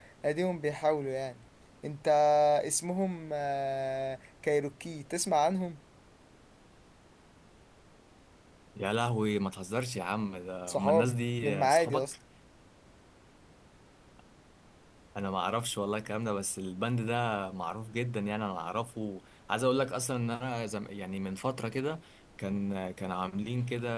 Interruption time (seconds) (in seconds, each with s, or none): 10.7 s